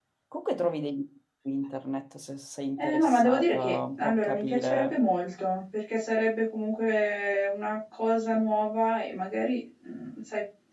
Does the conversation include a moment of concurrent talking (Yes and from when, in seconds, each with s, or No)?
Yes, from 2.8 s